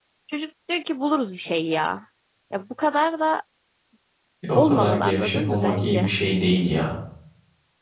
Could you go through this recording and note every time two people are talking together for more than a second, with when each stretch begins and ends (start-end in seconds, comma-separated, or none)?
4.5-6.1